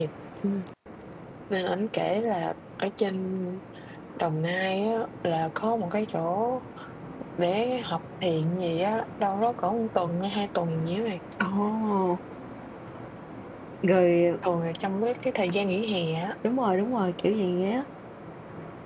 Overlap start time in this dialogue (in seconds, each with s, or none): none